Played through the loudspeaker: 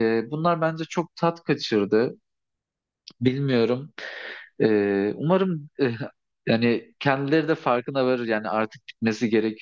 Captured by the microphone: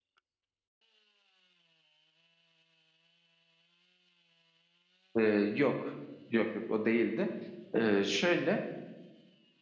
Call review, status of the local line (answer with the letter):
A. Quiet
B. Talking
B